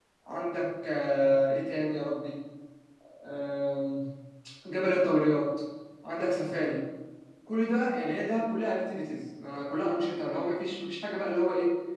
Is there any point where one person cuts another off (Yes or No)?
No